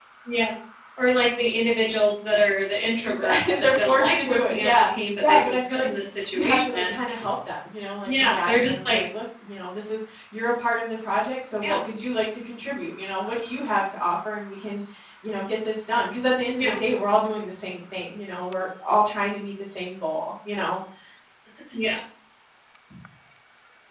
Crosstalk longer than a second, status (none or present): present